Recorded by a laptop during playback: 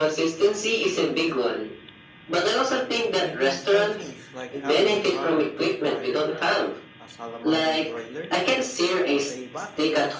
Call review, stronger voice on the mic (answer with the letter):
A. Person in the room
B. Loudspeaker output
B